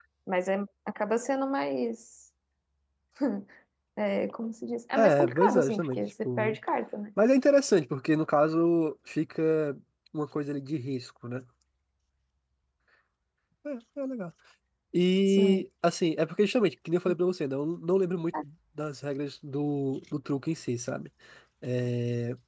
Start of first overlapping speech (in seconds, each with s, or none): 5.0 s